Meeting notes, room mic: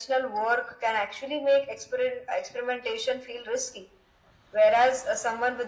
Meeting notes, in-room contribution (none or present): none